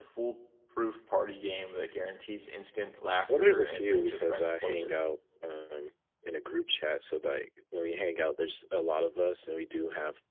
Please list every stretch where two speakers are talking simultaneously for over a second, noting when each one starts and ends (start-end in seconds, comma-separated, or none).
3.4-5.0